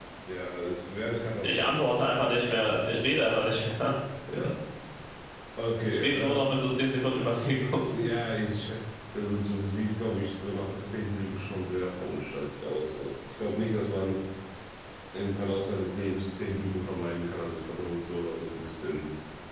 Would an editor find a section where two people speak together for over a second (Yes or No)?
No